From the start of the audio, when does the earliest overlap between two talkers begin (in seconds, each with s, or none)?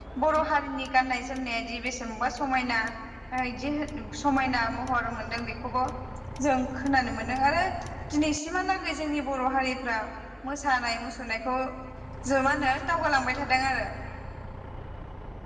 none